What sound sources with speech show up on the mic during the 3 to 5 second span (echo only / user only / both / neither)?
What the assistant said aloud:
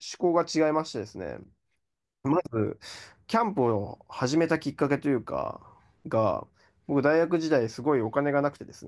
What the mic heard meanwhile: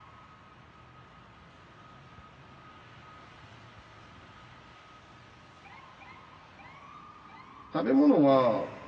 neither